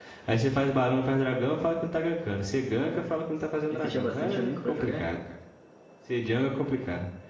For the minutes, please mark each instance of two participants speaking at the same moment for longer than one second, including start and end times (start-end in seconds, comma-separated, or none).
3.7-5.0